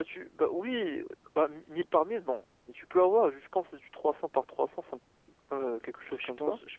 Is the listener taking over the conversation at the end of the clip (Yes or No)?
Yes